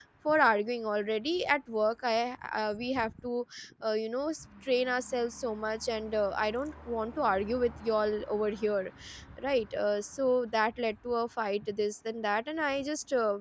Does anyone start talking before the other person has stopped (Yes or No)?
No